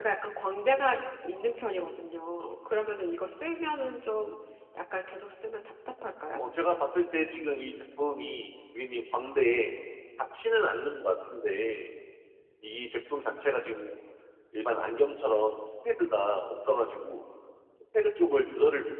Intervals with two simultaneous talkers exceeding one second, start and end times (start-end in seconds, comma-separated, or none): none